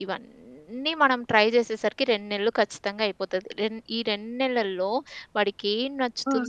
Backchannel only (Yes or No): Yes